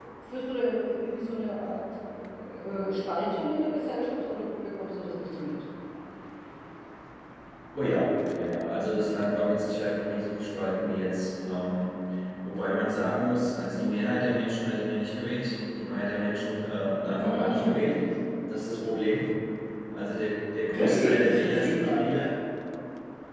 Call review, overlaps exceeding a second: present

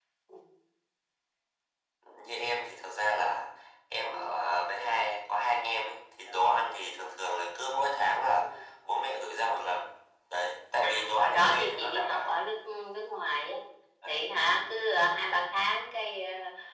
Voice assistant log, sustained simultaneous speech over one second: present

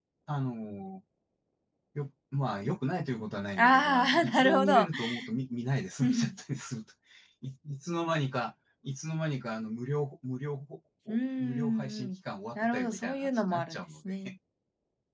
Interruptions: present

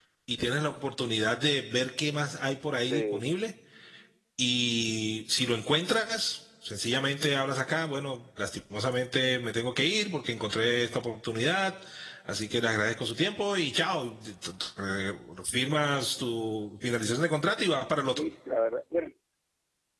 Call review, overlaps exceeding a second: none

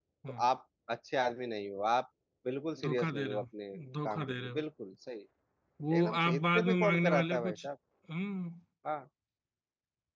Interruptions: present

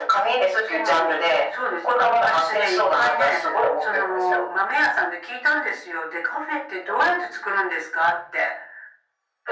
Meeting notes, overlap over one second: present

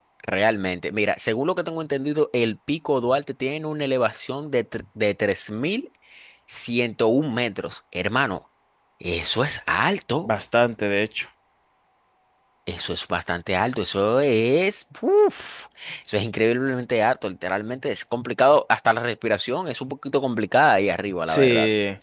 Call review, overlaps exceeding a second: none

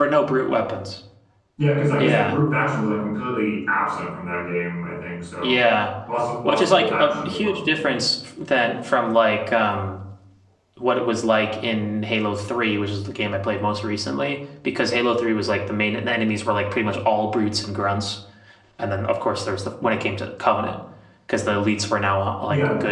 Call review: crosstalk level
present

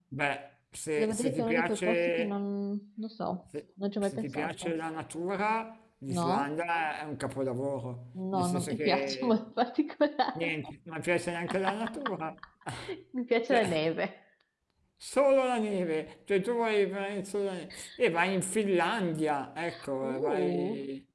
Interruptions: present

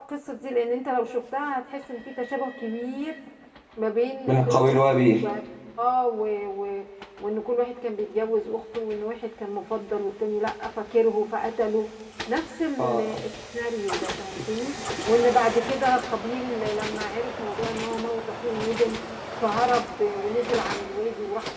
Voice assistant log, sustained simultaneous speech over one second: none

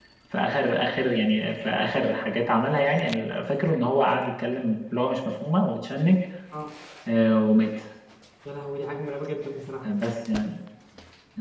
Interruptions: none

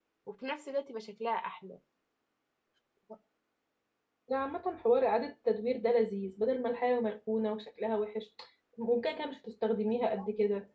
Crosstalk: none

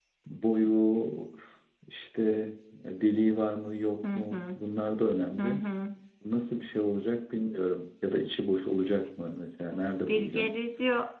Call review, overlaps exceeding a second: none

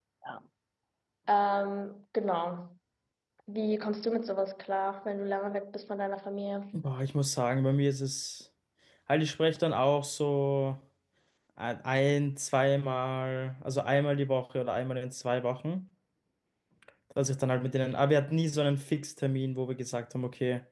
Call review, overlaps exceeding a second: none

